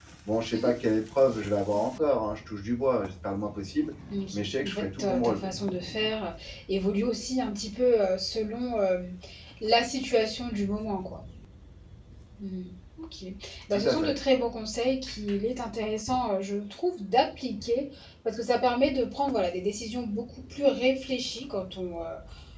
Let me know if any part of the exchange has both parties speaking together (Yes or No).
Yes